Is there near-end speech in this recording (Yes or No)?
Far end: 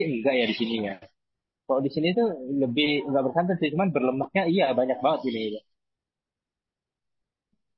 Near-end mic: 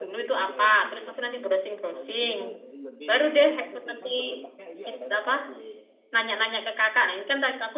Yes